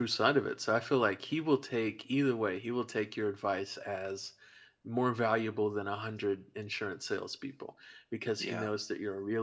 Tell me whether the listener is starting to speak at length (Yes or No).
No